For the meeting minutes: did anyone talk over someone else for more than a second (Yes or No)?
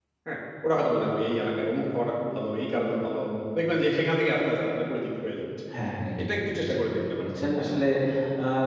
Yes